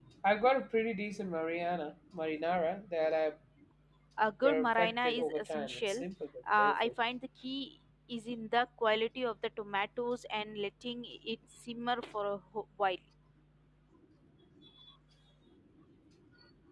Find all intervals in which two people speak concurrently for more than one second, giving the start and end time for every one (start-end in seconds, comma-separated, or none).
4.4-6.0